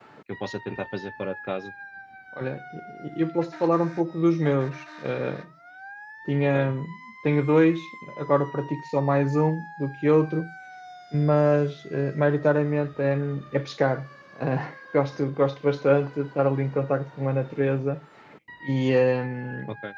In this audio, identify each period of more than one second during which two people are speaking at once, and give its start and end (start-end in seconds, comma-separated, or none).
none